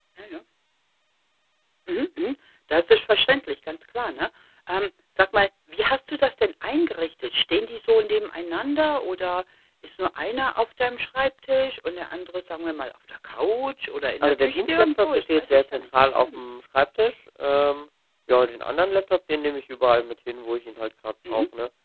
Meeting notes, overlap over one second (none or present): present